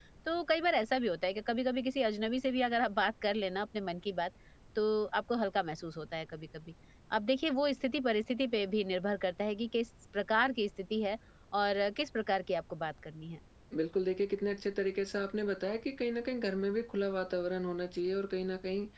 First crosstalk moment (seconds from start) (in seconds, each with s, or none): none